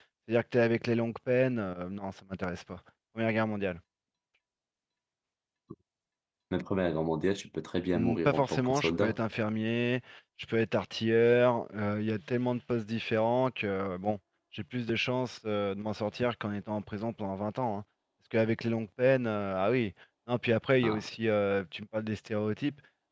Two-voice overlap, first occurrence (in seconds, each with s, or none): 7.9 s